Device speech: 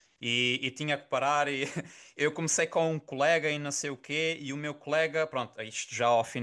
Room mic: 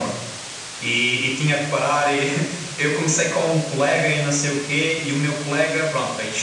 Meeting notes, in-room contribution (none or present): none